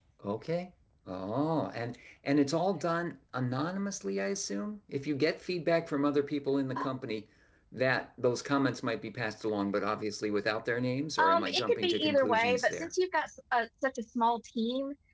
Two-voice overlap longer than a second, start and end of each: 11.2-12.9

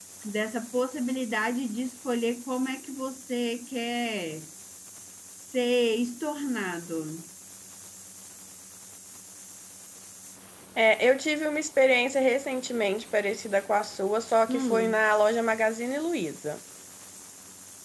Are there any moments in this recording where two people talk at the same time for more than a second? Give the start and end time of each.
none

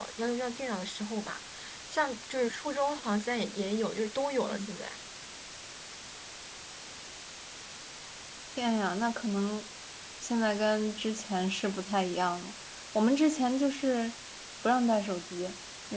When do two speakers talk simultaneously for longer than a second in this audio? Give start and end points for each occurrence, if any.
none

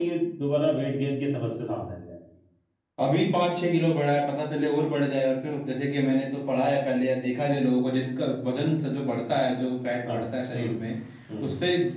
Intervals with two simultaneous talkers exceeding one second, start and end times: none

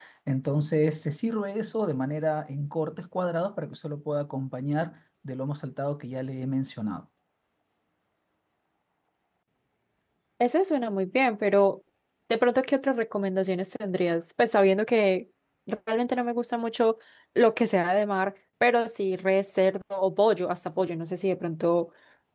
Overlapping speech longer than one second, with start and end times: none

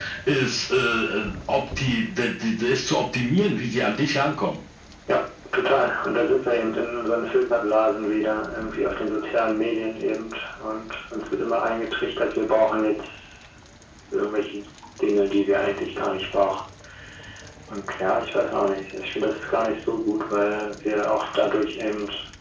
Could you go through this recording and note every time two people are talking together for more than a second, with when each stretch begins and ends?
none

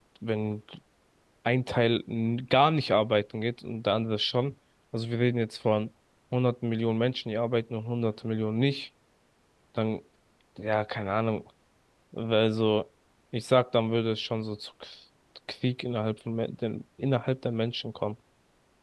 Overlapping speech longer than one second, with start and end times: none

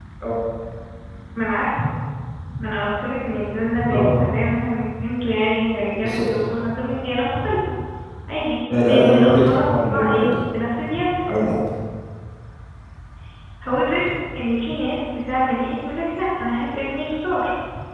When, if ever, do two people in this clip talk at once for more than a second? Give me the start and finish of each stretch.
8.9-10.3

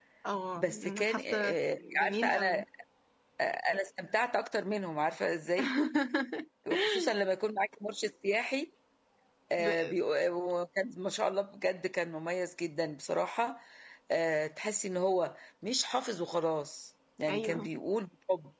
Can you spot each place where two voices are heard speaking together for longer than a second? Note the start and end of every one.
0.6-2.6

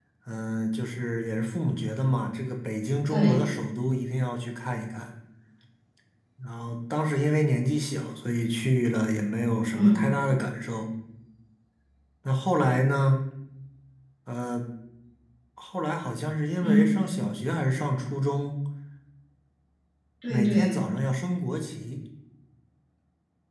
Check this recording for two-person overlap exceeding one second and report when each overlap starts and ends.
none

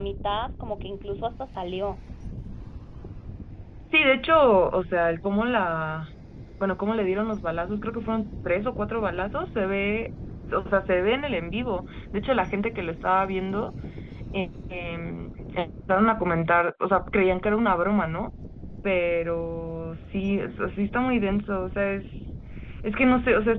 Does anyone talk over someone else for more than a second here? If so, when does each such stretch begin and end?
none

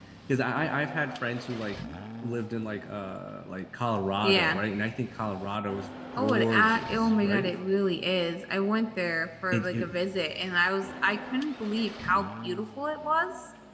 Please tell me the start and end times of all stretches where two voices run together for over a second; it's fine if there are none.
6.2-7.5

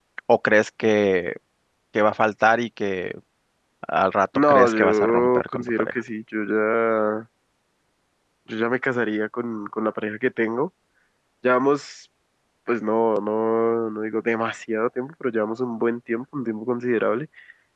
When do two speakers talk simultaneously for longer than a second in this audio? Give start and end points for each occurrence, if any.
4.5-6.0

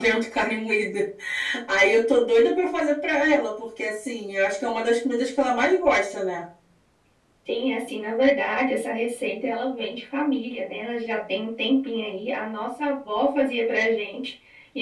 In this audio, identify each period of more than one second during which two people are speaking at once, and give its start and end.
none

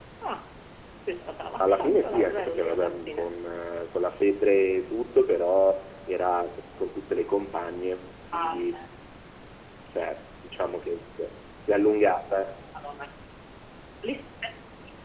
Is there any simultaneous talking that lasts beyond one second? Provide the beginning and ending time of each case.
1.6-3.3

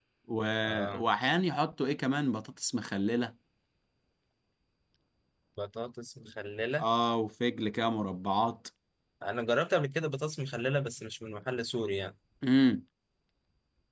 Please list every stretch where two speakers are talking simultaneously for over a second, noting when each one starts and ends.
none

